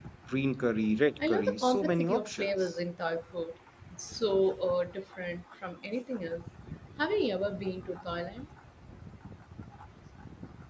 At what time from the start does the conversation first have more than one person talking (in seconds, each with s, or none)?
1.3 s